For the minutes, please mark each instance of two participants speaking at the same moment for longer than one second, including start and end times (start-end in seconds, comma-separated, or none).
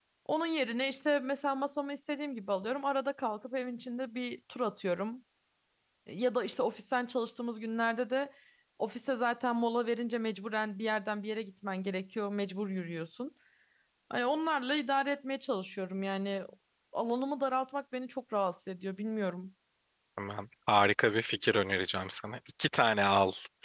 none